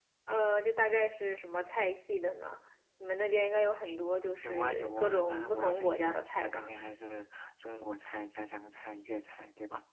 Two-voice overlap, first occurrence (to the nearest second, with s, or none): 4 s